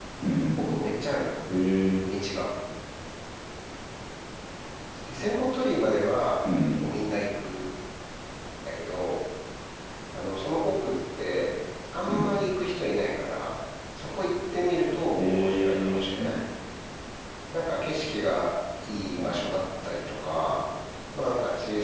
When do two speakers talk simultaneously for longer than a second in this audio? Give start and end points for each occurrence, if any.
15.2-16.4

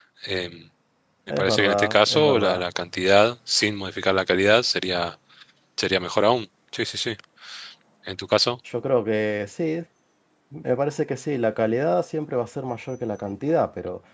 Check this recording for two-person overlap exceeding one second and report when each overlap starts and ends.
1.3-2.6

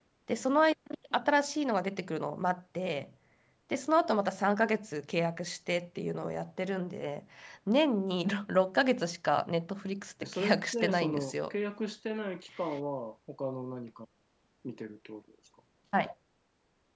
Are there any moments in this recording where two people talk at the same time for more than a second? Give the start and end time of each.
10.2-11.5

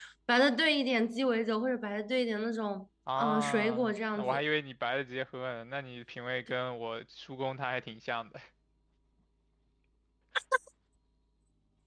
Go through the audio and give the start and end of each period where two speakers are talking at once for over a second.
3.2-4.4

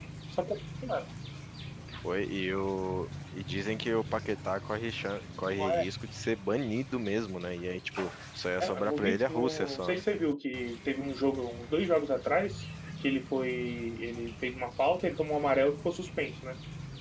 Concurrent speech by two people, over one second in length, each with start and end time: 8.6-10.0

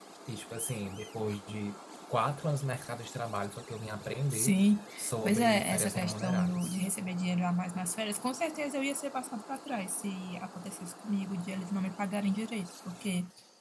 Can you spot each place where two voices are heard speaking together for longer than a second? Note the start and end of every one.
5.2-6.8

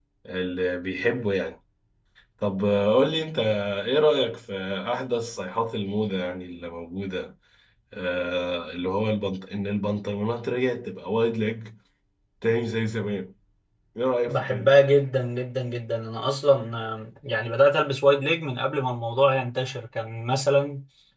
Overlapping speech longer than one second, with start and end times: none

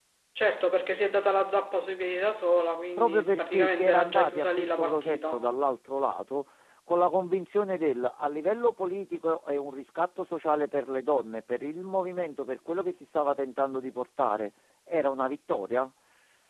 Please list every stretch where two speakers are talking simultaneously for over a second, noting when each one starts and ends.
3.0-5.5

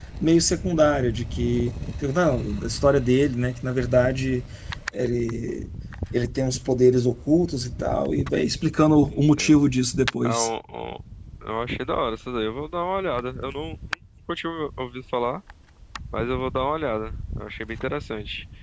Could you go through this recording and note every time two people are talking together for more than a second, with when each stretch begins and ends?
none

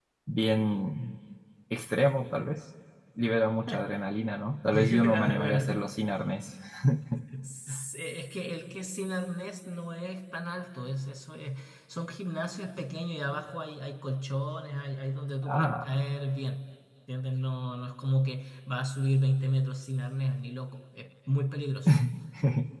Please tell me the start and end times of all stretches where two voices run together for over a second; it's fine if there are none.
4.7-5.9

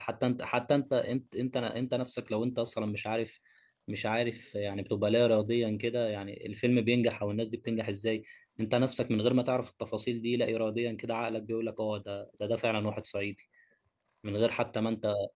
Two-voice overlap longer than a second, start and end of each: none

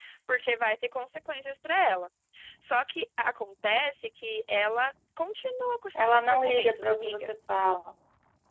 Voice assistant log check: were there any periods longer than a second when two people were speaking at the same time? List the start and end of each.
6.0-7.2

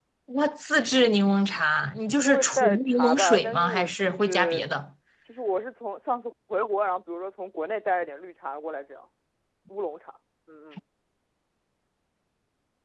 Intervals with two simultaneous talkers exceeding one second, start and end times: 2.1-4.6

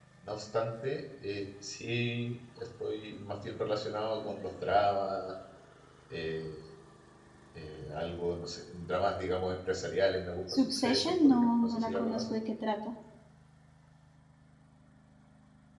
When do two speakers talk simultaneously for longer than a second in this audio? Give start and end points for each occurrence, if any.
10.5-12.3

